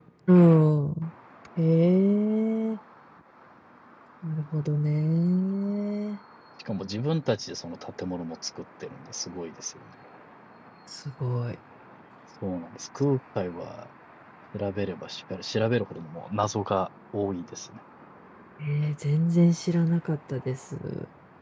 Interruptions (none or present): none